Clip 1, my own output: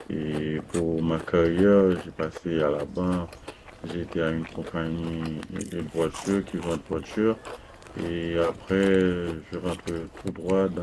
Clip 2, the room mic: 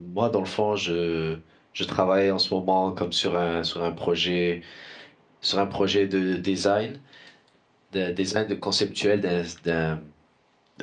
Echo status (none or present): none